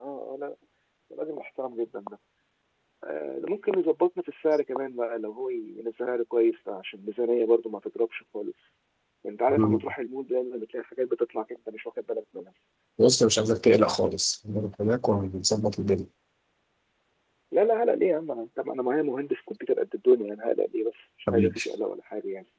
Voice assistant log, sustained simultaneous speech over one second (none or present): none